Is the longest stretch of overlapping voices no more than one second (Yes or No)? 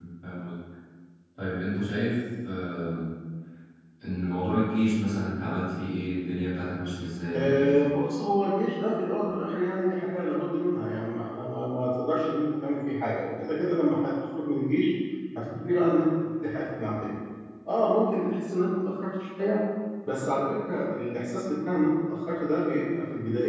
Yes